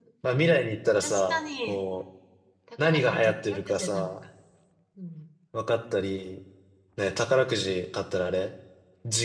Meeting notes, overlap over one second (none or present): present